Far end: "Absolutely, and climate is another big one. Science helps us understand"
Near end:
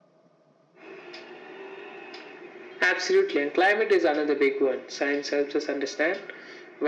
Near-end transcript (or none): none